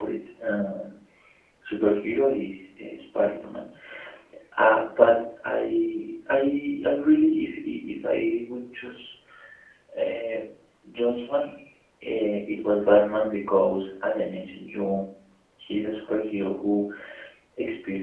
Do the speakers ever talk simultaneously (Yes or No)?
No